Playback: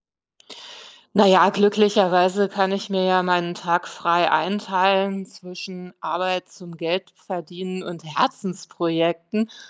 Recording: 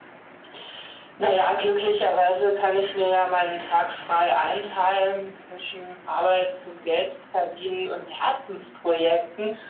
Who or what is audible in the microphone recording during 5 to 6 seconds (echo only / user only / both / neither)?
echo only